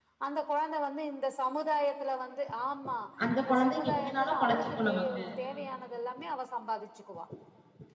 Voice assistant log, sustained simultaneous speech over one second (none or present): present